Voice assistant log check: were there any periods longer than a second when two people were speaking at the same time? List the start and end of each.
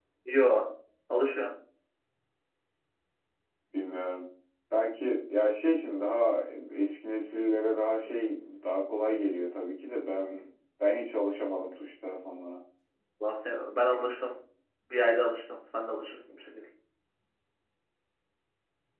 none

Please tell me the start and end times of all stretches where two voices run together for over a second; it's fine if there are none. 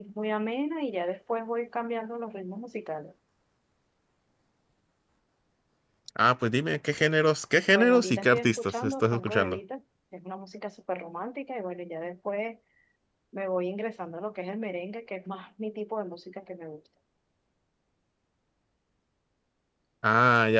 7.7-9.6

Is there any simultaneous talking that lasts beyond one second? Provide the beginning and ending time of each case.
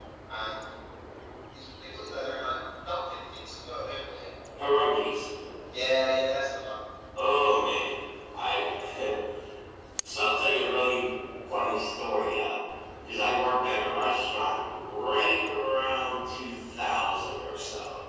none

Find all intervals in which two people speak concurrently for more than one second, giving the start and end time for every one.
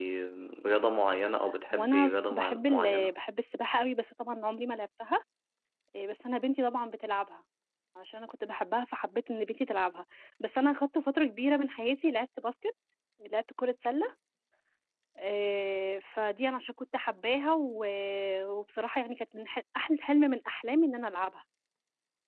1.7-3.2

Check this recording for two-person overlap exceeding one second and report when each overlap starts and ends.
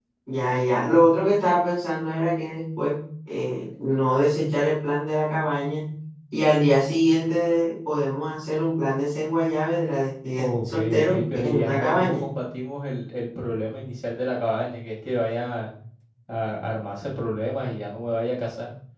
10.4-12.2

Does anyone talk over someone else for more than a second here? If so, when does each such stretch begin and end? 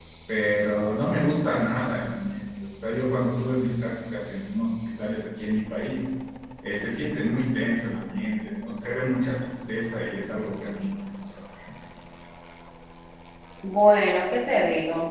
none

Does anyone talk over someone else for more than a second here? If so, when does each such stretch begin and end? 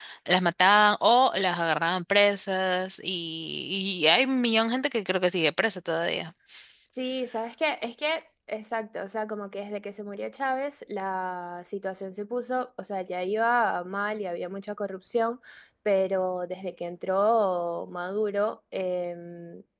none

